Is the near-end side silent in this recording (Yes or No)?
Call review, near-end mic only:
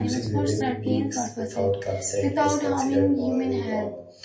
No